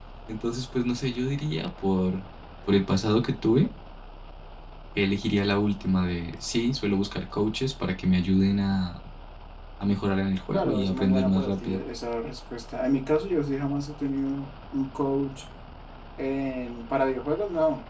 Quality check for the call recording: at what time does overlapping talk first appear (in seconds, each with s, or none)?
10.5 s